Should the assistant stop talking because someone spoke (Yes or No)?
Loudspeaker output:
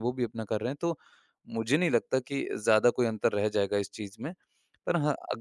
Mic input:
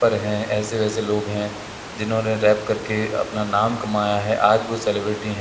Yes